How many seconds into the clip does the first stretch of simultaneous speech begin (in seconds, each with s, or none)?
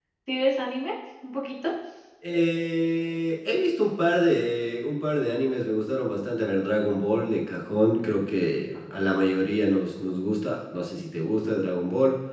none